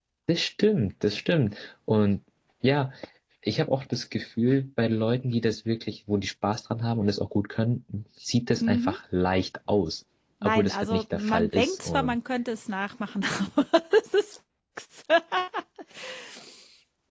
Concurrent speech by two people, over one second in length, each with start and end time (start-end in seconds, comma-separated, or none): 10.4-12.2